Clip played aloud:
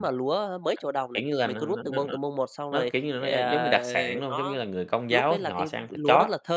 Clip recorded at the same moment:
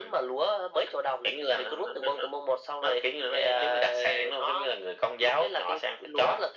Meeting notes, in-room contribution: none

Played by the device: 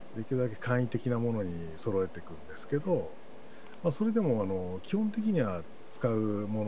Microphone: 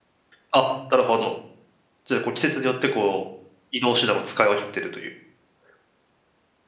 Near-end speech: present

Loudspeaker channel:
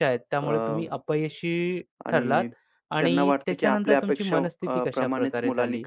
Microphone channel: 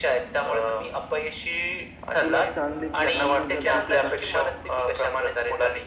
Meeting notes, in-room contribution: present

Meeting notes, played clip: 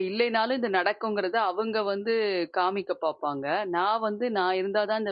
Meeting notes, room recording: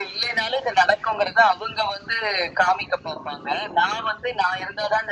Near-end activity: none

